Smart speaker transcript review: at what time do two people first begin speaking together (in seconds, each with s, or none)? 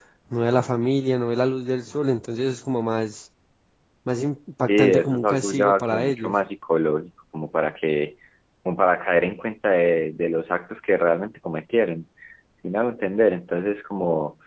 4.7 s